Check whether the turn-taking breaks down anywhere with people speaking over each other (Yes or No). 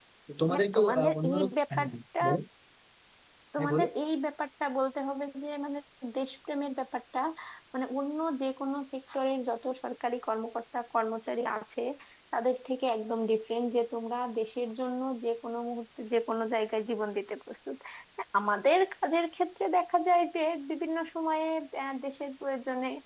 Yes